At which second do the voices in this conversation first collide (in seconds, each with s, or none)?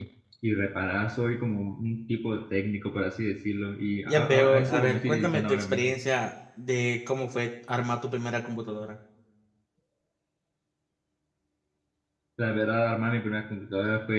4.1 s